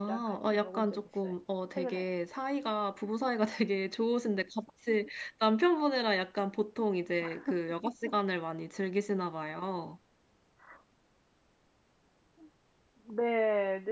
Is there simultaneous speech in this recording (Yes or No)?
Yes